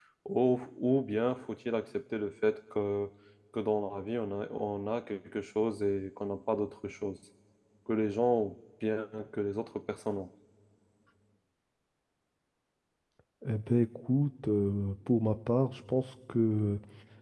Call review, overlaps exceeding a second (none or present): none